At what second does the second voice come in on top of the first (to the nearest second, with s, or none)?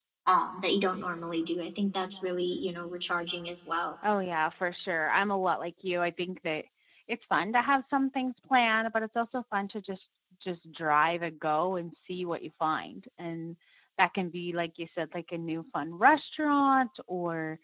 none